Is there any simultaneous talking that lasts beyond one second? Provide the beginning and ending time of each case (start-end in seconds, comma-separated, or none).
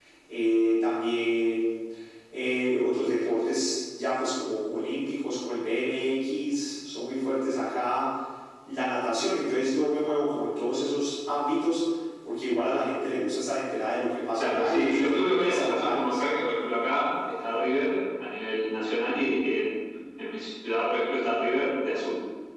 14.4-16.3